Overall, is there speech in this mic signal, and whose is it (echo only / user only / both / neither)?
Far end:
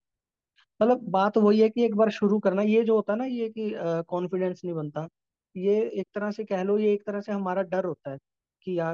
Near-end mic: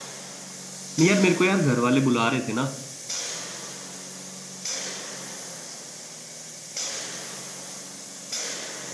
user only